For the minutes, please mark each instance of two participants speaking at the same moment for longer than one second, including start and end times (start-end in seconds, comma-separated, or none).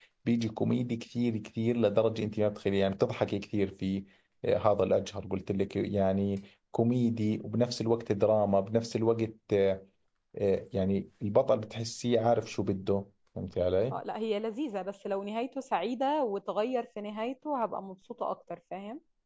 none